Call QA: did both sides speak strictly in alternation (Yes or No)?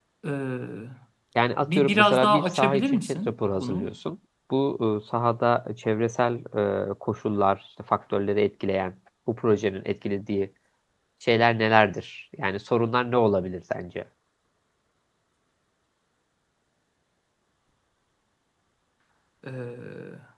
No